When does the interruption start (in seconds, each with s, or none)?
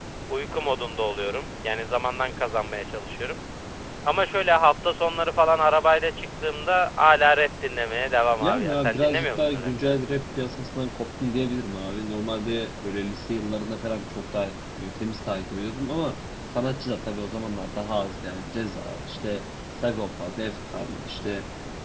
8.4 s